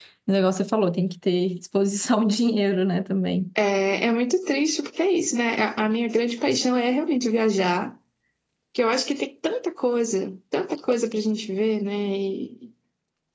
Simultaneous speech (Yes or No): No